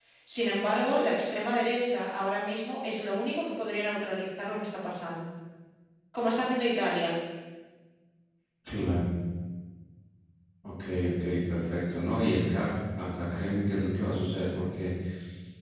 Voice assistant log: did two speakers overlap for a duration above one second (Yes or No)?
No